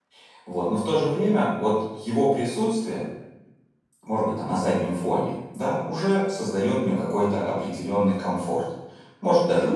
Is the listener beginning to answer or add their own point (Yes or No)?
No